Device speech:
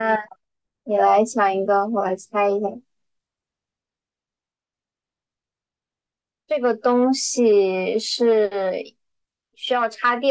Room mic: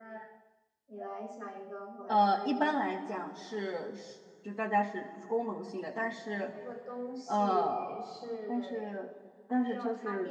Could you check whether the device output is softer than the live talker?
Yes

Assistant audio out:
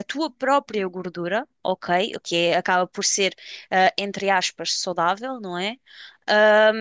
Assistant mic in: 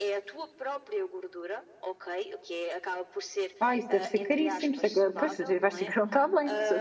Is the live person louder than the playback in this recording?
Yes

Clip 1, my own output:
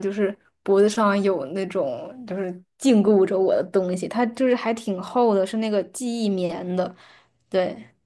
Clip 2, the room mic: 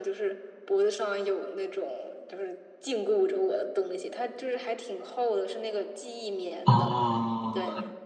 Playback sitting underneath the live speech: Yes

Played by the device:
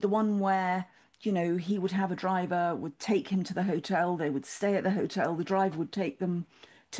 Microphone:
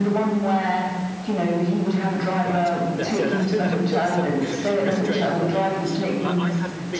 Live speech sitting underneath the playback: Yes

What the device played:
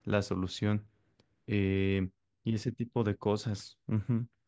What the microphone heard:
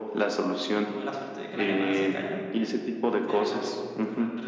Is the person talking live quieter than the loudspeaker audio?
Yes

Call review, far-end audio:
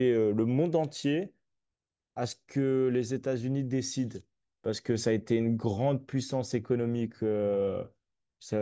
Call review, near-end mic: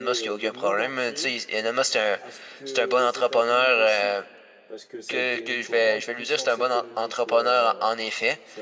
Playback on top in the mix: No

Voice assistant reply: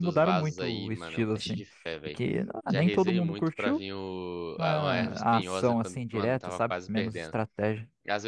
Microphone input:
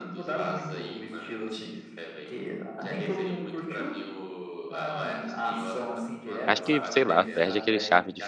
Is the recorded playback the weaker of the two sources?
Yes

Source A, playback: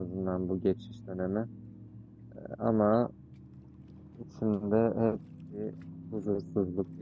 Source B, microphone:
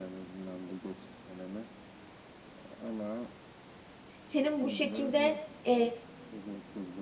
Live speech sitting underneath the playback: No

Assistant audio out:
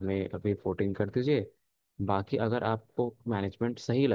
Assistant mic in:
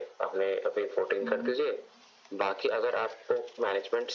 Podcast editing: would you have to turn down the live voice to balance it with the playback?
No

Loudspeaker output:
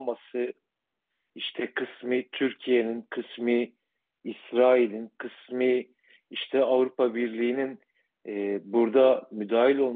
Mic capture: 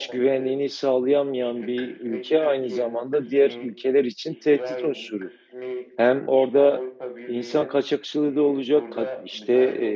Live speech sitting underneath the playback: No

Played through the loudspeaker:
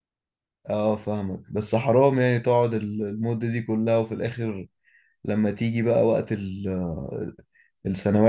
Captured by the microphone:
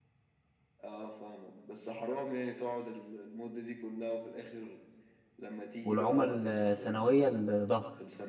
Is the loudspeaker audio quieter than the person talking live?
Yes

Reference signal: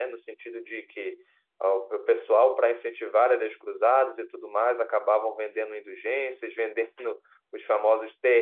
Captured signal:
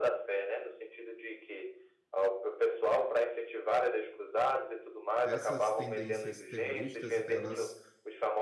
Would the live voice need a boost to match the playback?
Yes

